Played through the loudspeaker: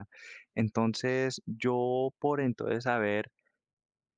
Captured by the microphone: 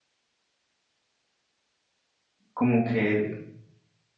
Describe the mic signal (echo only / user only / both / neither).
user only